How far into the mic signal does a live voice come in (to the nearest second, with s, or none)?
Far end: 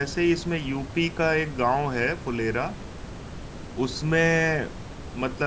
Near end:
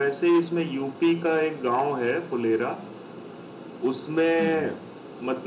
4 s